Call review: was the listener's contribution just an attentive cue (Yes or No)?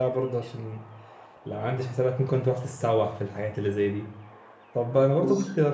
Yes